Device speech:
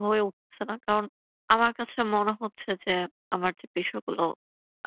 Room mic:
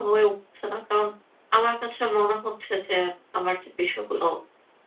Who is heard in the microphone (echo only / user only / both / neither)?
echo only